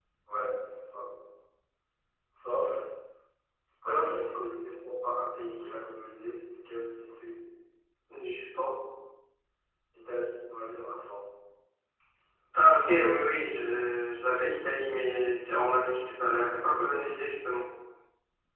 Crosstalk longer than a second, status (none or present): none